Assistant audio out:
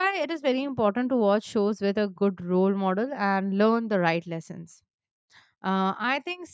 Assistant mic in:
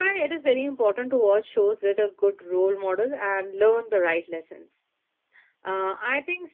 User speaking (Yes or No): No